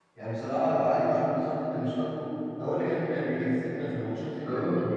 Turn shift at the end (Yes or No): Yes